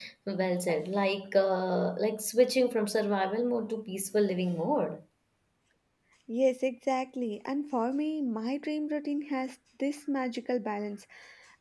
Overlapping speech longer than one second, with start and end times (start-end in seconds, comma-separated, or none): none